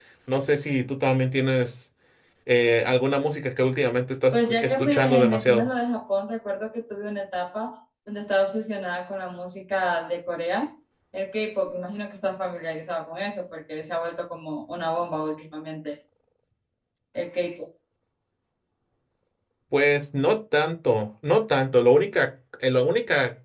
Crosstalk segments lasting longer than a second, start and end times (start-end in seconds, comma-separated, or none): 4.3-5.7